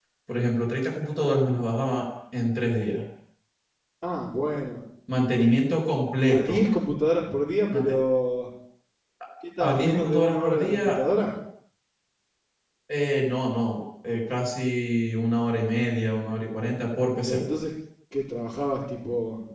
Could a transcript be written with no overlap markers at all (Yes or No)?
No